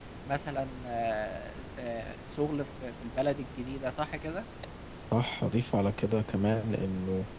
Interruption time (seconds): none

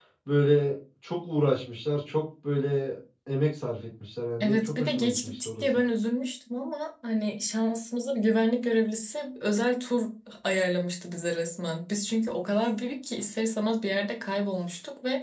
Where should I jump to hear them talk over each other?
4.4 s

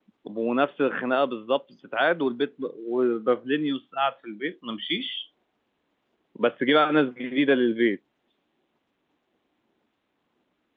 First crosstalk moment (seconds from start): none

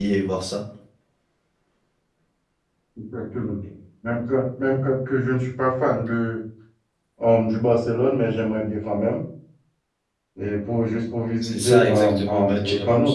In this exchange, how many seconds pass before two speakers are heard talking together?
11.4 s

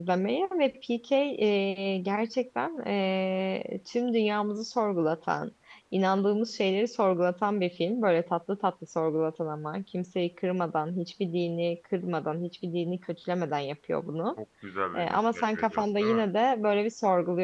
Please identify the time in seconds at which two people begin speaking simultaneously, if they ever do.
14.9 s

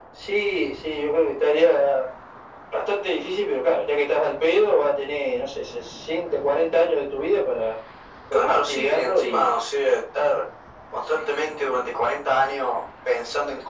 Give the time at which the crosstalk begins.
8.3 s

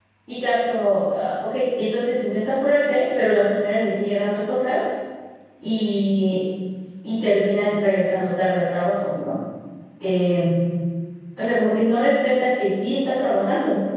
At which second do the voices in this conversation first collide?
none

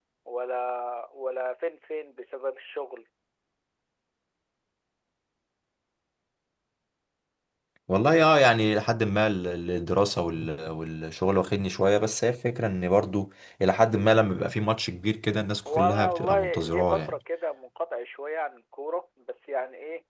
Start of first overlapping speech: 15.7 s

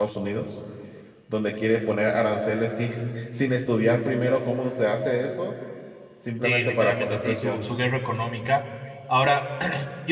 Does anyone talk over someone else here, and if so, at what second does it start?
6.4 s

